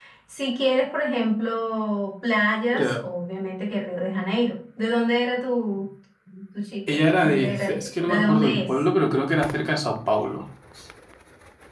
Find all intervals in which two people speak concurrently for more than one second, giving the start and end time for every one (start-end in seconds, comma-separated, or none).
6.9-8.7